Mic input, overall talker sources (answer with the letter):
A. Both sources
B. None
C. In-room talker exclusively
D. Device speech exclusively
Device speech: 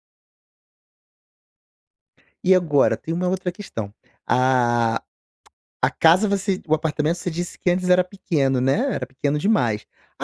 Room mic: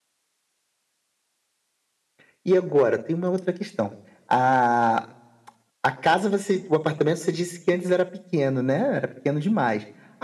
D